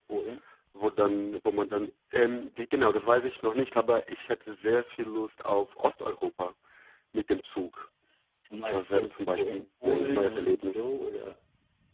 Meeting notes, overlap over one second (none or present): present